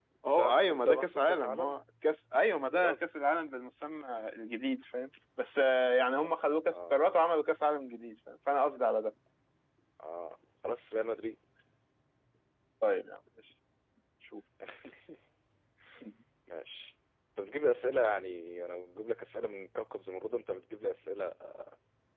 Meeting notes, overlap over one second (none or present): present